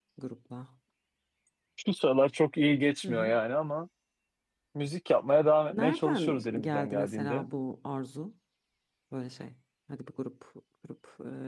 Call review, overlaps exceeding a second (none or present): present